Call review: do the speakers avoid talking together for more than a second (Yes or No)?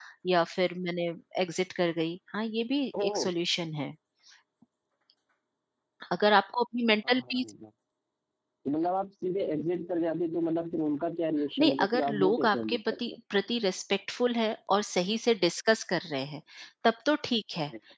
No